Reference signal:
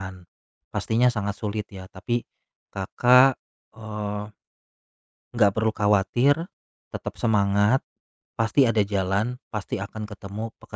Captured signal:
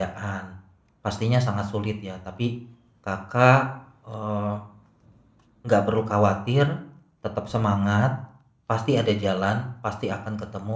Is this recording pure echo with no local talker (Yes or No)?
Yes